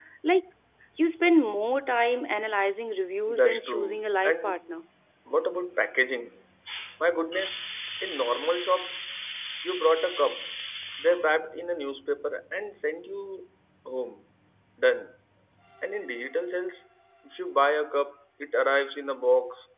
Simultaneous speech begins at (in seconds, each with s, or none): 3.3 s